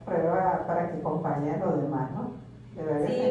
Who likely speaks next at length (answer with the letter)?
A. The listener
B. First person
A